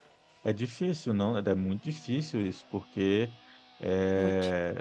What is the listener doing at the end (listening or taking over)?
listening